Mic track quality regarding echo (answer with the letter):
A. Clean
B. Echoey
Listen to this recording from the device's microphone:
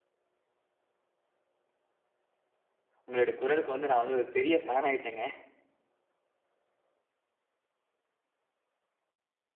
A